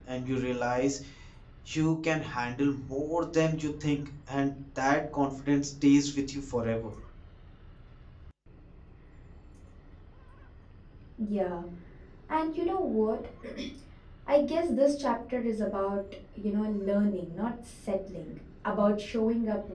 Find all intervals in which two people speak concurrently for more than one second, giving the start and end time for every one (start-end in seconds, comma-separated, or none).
none